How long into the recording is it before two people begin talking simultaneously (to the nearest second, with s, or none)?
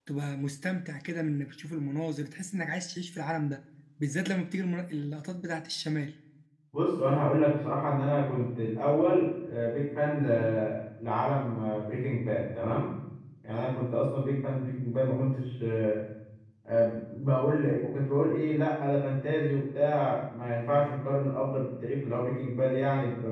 none